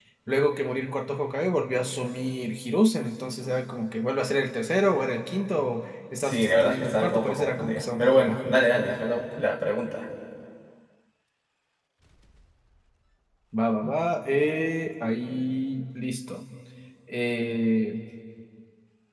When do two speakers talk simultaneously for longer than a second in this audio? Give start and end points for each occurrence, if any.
6.2-8.7

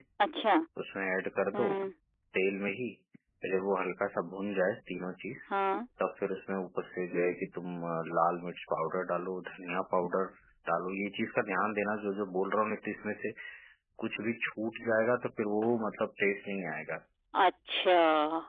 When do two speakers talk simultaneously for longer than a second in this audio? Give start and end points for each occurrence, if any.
none

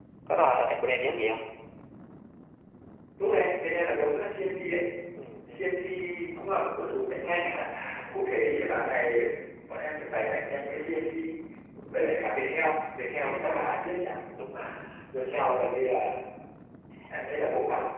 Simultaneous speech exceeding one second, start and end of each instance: none

